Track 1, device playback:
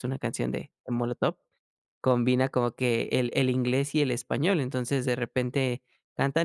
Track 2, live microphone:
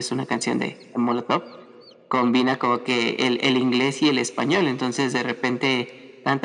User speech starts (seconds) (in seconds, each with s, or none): none